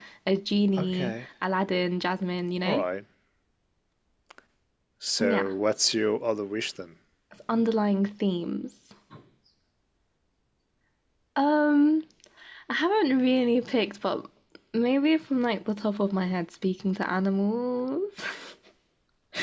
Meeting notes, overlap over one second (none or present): none